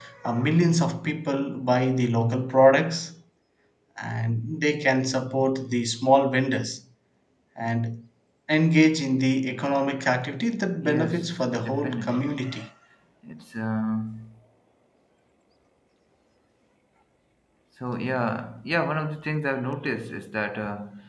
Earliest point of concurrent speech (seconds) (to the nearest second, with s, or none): 11 s